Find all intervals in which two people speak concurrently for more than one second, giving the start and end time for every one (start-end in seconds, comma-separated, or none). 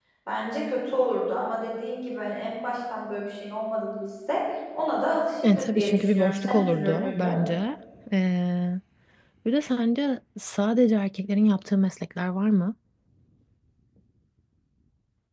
5.4-7.3